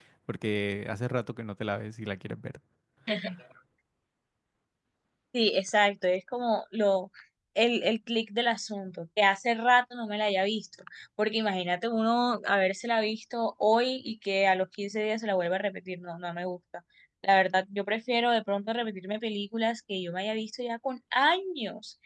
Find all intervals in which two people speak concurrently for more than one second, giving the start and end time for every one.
none

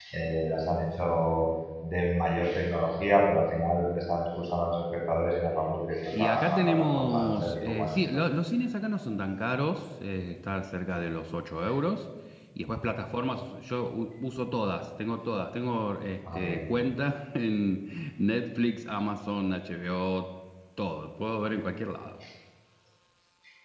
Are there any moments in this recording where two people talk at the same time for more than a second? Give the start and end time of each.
6.1-8.2

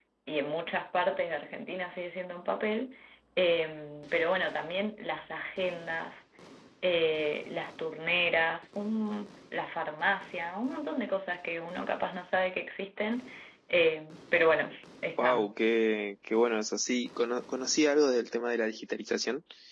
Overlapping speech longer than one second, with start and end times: none

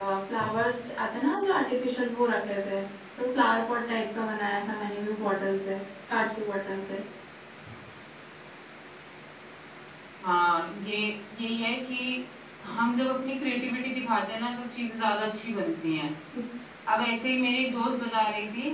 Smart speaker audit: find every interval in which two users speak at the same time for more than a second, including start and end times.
none

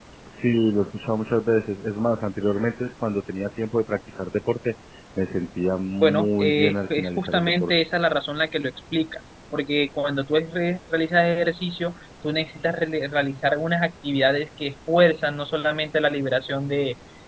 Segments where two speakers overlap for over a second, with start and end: 6.0-7.7

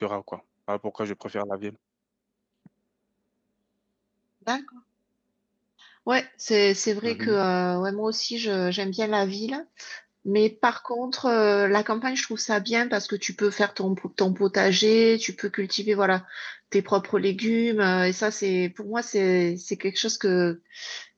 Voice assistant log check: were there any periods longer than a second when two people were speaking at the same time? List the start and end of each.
none

